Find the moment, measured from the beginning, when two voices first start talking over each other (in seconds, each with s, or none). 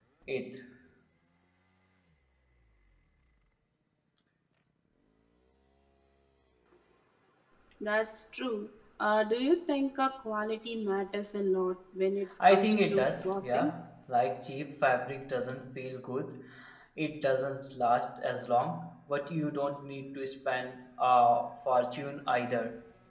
12.4 s